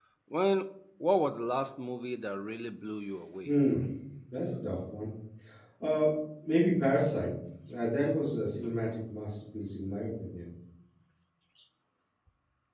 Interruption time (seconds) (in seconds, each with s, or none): none